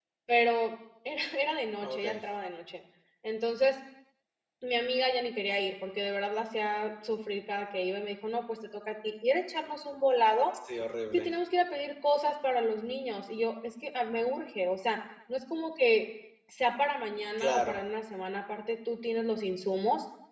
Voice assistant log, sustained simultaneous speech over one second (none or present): none